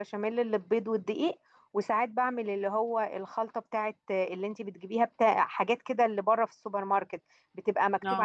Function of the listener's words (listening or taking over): listening